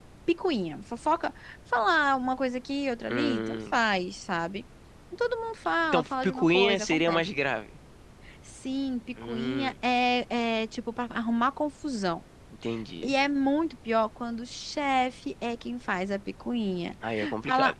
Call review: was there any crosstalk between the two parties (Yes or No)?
Yes